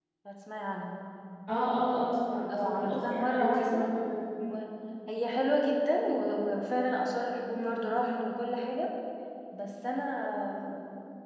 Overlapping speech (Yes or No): Yes